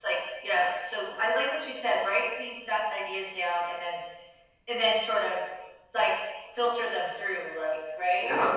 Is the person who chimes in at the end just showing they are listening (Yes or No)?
No